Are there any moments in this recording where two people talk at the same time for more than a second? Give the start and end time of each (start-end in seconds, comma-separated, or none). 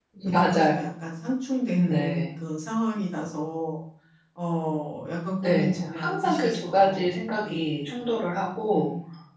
5.4-7.9